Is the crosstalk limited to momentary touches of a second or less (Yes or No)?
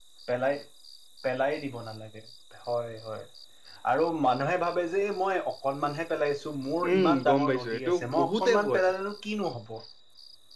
No